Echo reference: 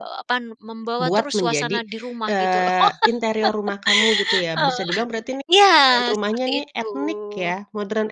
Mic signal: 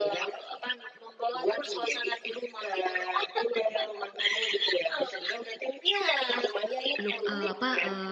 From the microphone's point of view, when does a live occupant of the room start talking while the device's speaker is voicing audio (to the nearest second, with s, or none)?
7 s